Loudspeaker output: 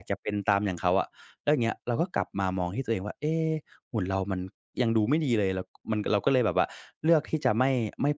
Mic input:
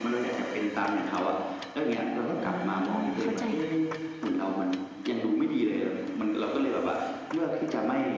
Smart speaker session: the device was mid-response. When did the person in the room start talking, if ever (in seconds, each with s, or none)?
2.4 s